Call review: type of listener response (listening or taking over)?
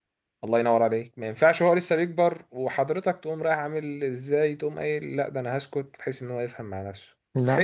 listening